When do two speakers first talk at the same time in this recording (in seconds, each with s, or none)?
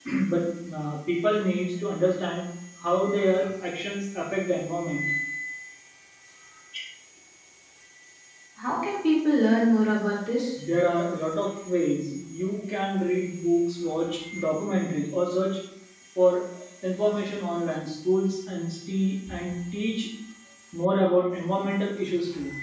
none